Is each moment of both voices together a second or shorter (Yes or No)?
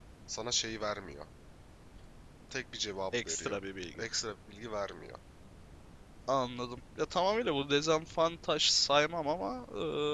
Yes